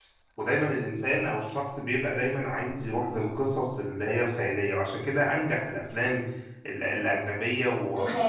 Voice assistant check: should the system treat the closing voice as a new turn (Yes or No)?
No